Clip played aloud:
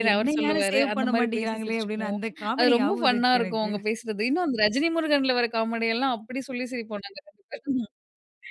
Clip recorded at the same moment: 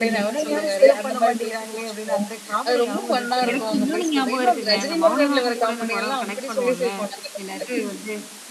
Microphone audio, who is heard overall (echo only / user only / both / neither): both